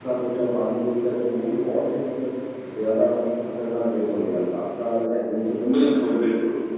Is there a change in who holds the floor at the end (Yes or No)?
No